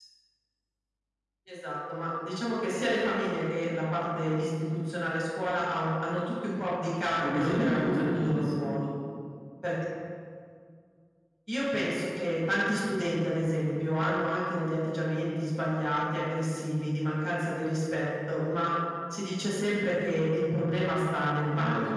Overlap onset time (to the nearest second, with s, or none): 7 s